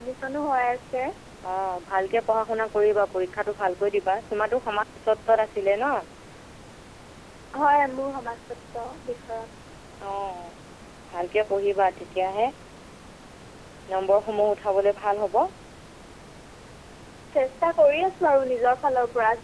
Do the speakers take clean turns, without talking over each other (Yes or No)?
Yes